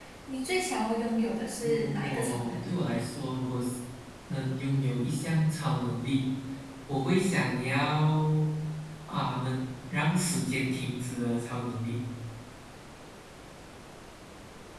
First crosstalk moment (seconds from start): 1.6 s

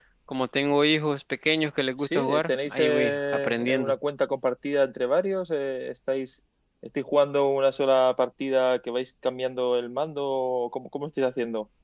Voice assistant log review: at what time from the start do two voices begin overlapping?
2.0 s

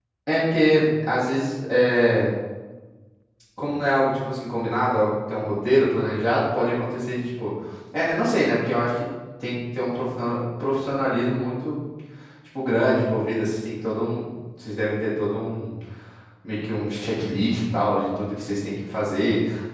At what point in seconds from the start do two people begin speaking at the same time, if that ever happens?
none

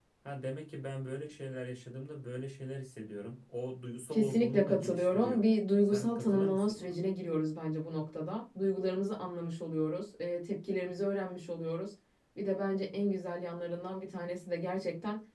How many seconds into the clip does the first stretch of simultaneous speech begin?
4.1 s

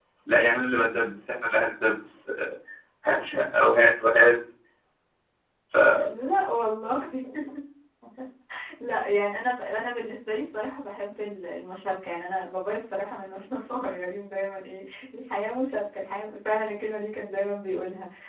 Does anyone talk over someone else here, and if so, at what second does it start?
none

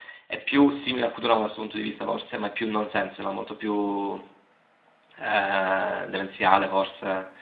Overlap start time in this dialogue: none

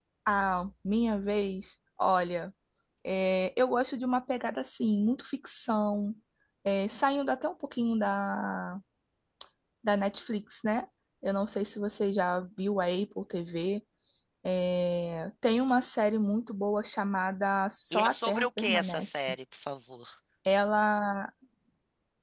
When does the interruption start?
17.9 s

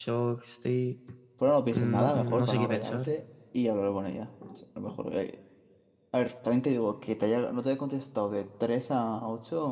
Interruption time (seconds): 1.7 s

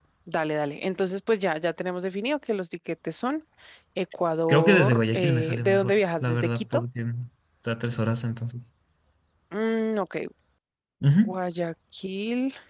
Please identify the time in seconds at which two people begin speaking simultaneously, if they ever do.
4.5 s

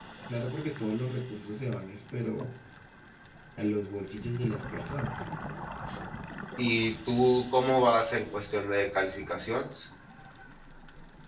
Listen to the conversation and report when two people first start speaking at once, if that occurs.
none

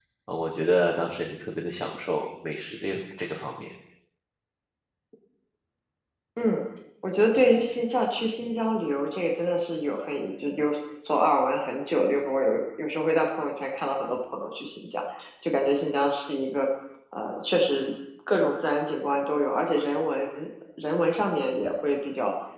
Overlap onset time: none

